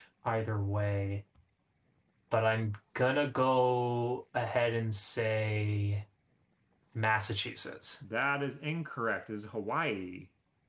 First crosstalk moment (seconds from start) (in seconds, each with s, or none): none